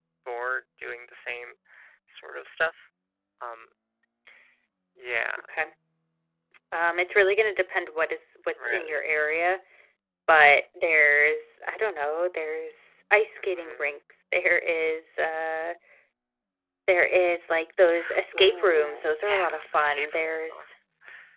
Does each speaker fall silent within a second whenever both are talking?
No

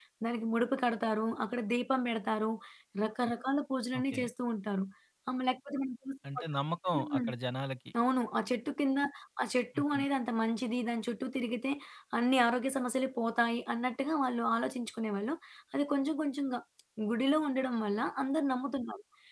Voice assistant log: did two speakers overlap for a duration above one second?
No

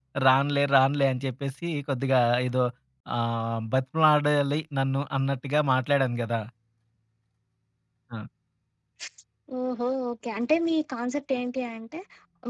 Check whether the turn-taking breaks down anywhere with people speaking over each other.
No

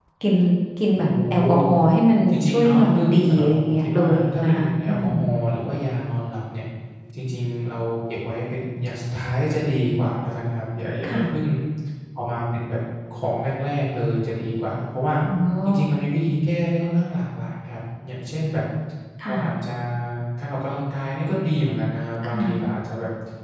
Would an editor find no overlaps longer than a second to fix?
No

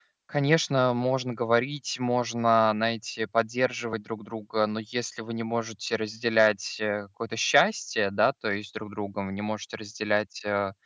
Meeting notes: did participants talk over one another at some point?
No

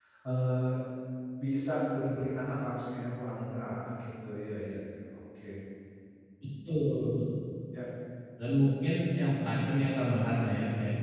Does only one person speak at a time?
Yes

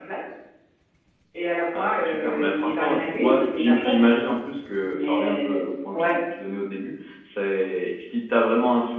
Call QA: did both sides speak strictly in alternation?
No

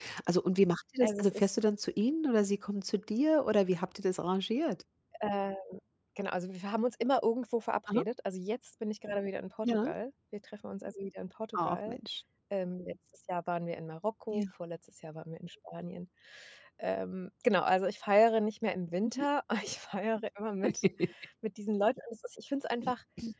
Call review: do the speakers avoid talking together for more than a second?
Yes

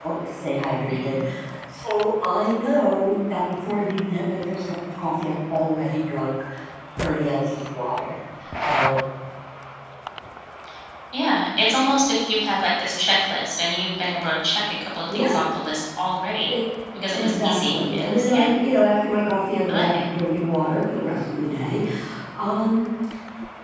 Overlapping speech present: Yes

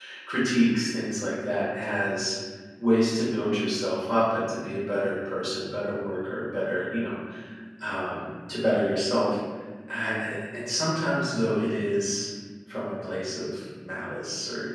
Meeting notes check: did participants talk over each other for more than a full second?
No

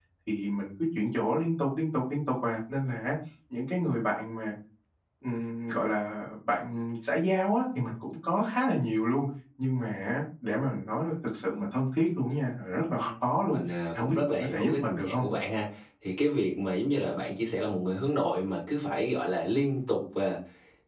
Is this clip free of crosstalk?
No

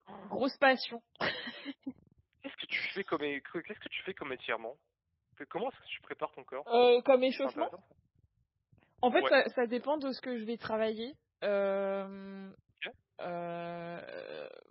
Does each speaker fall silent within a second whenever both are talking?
Yes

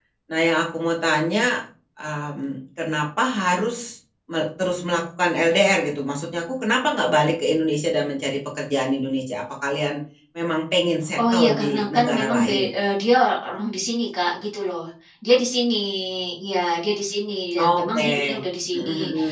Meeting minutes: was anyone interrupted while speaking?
Yes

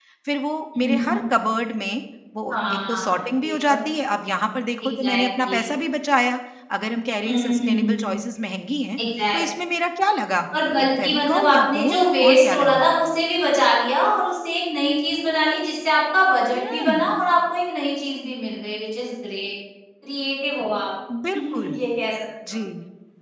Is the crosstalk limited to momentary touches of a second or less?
No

